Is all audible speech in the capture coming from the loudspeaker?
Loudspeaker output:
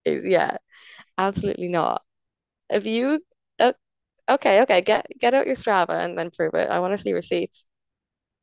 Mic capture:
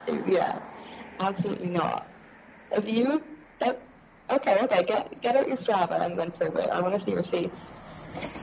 Yes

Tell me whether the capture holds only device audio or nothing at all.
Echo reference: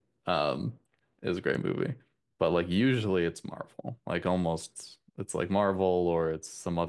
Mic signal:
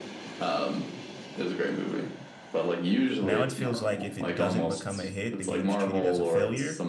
No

